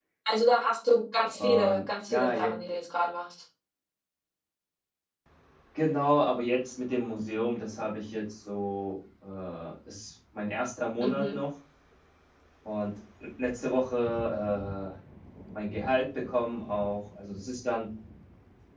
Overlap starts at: 1.3 s

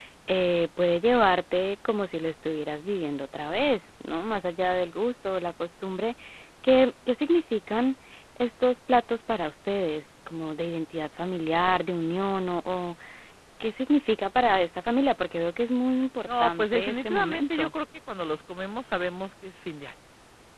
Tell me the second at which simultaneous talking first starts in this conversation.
16.3 s

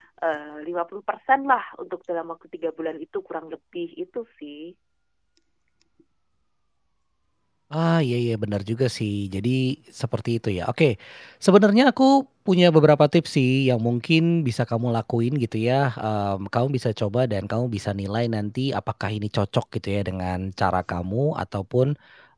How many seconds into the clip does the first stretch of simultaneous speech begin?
none

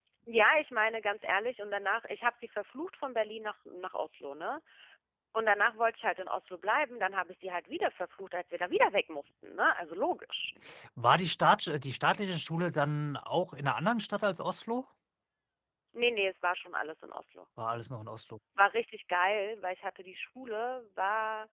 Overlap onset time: none

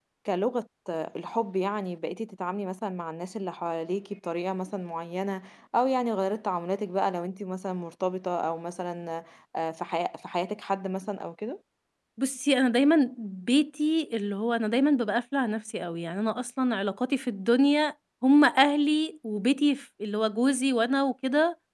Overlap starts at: none

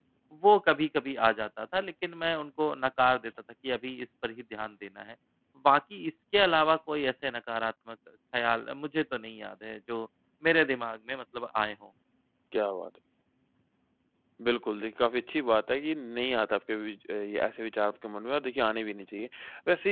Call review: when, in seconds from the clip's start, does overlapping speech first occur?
none

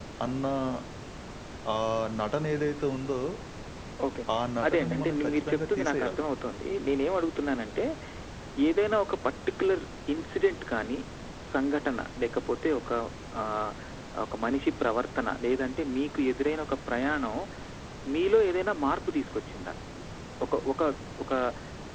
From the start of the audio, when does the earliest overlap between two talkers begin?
4.6 s

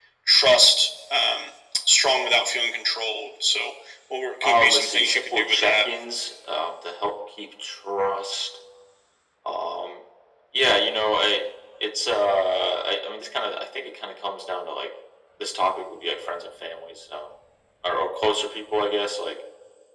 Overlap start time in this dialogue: 4.4 s

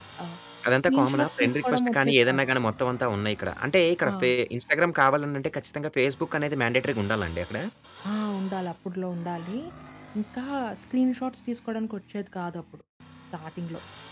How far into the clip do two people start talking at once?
0.9 s

